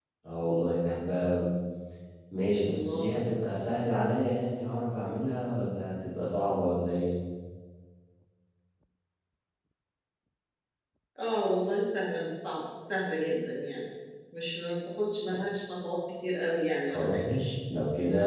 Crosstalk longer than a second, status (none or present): none